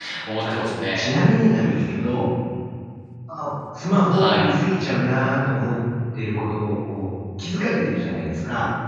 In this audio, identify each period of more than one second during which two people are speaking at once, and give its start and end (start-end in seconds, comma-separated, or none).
none